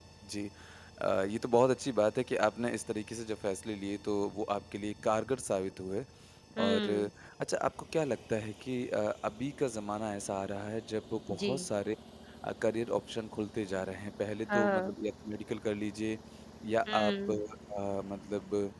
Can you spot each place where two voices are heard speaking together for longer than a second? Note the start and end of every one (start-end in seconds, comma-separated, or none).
none